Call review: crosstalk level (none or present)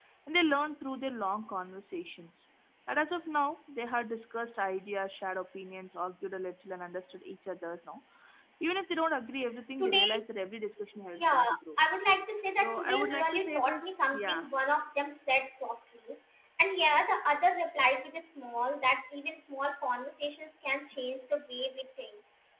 present